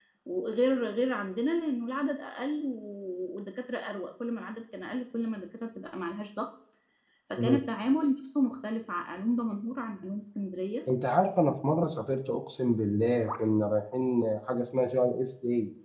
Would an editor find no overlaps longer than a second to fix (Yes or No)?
Yes